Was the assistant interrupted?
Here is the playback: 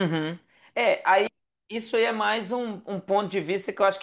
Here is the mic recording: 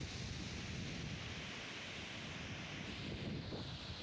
No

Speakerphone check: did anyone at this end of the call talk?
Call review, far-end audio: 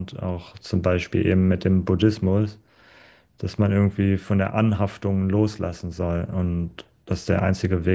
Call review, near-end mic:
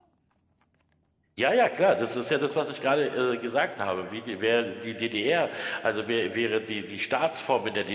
Yes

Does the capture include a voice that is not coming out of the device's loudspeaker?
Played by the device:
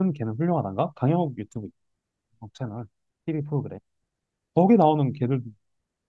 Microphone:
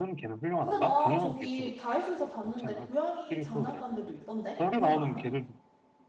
Yes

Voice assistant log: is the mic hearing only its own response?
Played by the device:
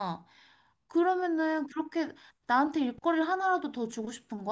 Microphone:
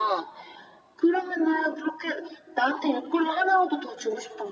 Yes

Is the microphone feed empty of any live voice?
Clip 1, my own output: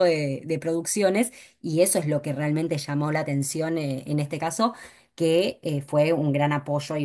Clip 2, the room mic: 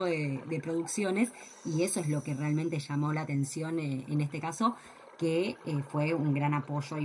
Yes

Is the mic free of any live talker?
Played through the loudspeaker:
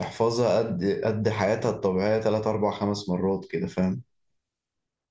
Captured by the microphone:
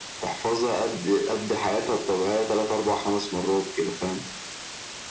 Yes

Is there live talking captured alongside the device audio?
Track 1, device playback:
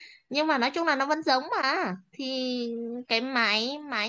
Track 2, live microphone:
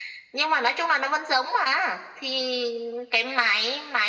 No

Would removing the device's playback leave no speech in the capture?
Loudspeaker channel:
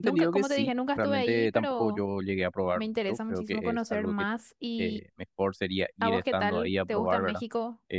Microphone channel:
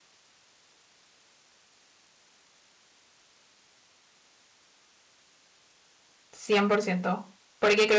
No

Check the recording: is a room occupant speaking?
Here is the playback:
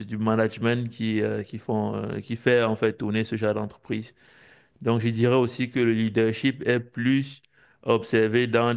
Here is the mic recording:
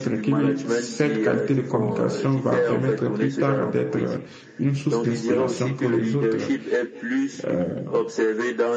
Yes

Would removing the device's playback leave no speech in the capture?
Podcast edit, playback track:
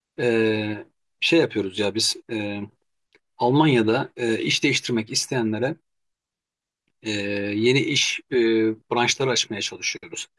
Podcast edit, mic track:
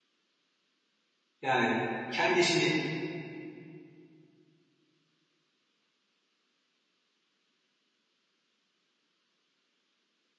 No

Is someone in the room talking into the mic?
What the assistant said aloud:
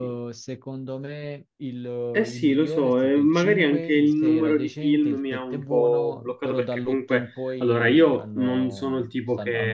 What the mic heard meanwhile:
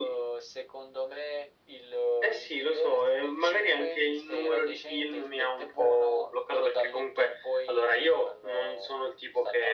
No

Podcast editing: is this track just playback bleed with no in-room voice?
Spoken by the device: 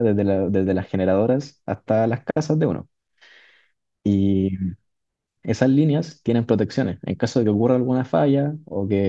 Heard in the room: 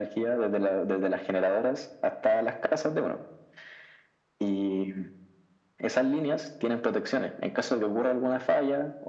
Yes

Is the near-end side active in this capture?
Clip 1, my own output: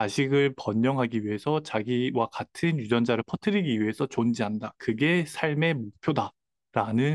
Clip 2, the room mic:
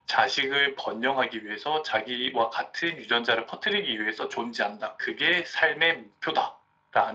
No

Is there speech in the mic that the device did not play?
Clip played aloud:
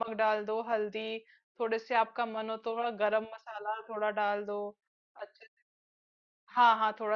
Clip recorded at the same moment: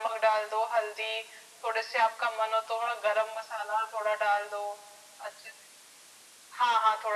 No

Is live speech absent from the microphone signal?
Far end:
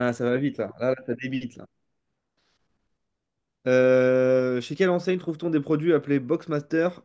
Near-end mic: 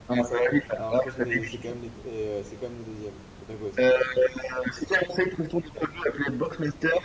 No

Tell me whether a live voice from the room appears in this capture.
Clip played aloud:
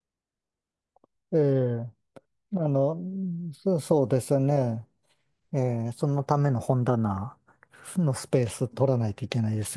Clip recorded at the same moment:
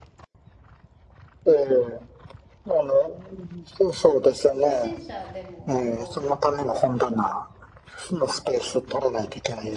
Yes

